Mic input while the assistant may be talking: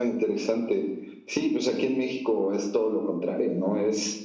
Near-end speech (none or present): none